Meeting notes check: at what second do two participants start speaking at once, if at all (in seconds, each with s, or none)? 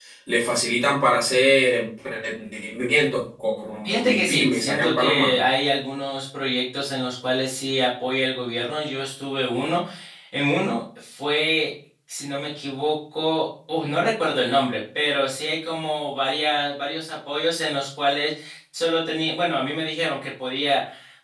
3.8 s